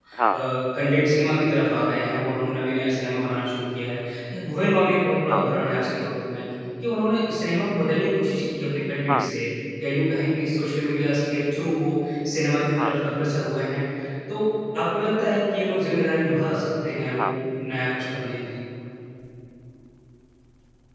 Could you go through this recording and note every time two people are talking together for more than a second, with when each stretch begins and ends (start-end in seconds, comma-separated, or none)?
none